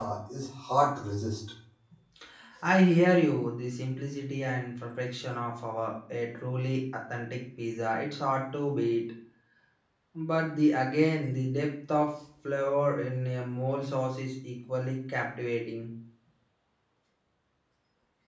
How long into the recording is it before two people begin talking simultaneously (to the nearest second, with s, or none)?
none